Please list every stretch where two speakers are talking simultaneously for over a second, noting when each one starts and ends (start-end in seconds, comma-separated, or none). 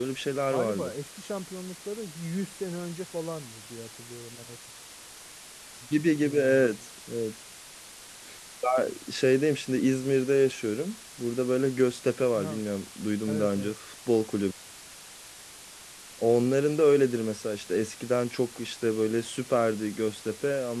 none